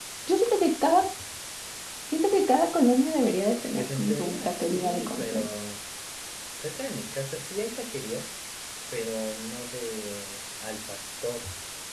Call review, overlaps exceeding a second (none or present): present